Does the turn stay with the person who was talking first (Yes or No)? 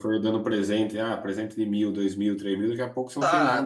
No